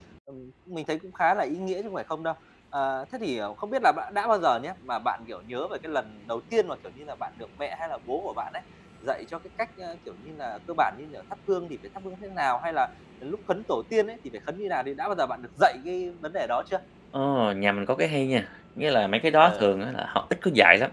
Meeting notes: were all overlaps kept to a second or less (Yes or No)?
Yes